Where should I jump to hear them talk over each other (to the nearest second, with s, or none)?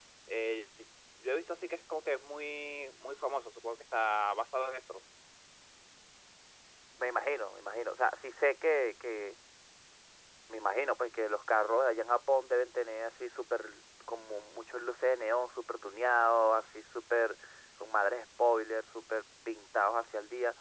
none